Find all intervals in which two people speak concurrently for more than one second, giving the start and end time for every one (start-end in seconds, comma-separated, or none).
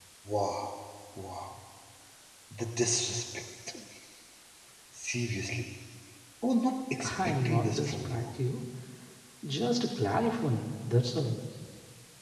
7.0-8.3